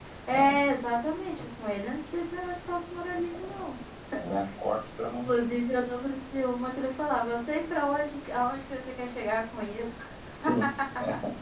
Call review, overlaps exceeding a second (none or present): none